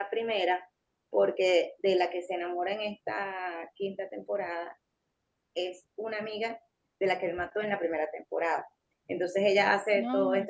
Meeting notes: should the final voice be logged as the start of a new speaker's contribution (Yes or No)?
No